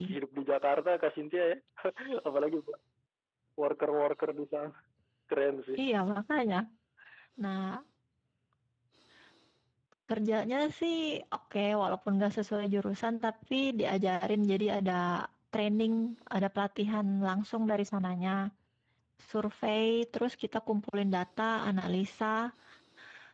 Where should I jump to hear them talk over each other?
none

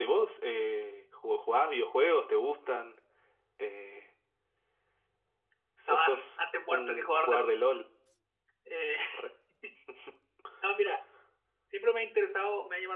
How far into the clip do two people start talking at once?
5.9 s

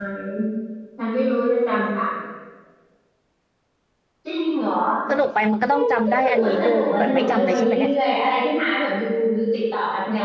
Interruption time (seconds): 5.7 s

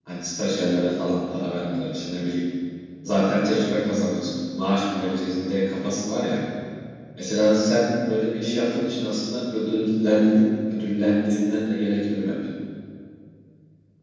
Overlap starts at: none

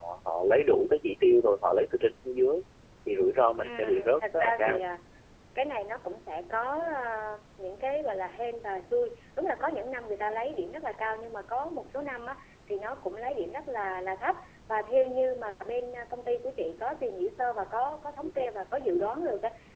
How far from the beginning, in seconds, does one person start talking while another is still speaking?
3.6 s

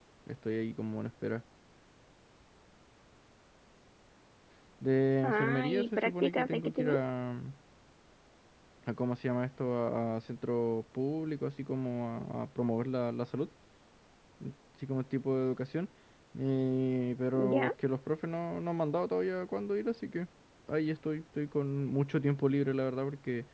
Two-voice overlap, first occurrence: 5.2 s

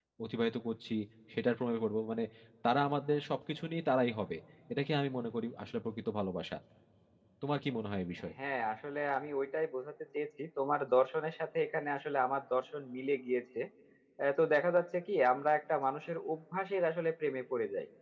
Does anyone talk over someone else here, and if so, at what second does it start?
none

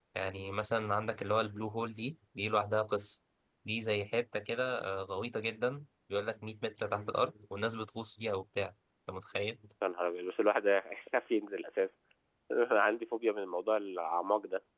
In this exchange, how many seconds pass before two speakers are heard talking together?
none

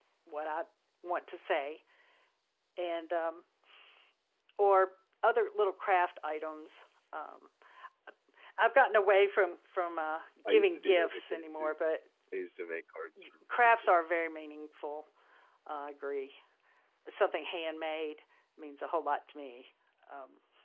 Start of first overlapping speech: 10.5 s

